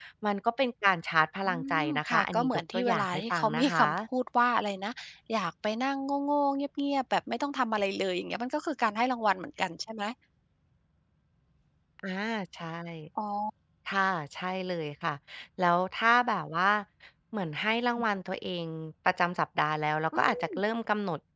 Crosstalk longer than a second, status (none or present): present